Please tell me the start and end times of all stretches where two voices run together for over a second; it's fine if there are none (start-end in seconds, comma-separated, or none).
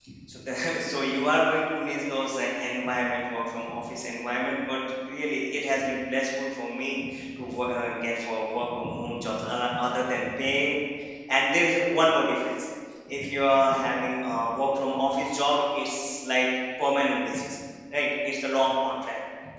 none